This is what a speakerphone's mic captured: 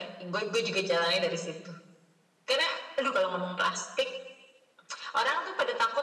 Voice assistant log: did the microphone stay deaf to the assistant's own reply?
No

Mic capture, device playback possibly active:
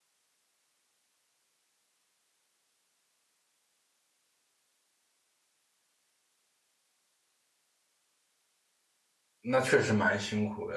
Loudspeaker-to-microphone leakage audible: No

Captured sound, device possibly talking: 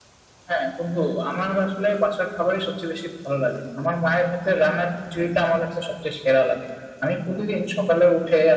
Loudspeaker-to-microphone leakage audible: Yes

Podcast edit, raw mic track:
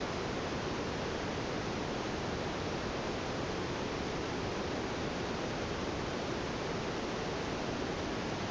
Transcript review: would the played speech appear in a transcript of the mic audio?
No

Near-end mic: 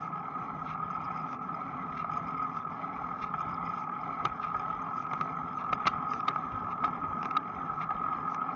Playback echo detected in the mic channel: No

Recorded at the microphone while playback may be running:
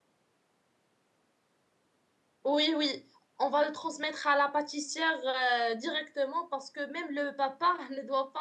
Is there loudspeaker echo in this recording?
No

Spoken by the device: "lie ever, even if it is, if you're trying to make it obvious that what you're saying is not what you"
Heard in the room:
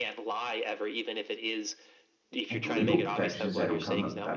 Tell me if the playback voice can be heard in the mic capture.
Yes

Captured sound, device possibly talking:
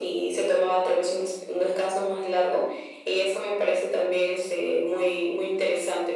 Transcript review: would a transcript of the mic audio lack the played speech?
No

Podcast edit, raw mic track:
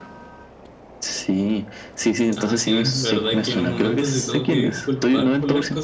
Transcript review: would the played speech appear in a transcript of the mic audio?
Yes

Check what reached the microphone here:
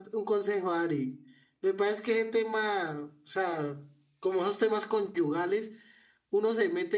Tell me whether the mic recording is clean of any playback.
Yes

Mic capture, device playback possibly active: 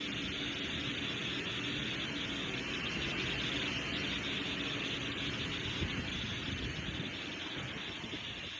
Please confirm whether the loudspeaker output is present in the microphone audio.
No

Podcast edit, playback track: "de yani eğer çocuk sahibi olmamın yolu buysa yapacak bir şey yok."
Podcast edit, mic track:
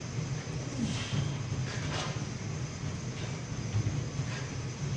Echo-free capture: Yes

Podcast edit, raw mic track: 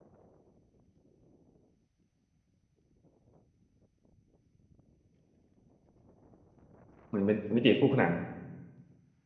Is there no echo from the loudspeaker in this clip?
Yes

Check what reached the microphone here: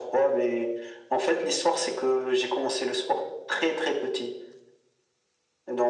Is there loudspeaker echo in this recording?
Yes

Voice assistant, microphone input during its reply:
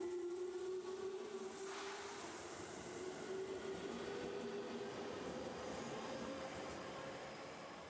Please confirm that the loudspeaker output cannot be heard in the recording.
Yes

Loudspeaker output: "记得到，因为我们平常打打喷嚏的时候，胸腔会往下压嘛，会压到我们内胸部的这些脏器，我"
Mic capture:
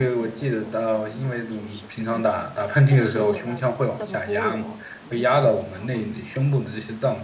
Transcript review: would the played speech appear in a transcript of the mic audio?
Yes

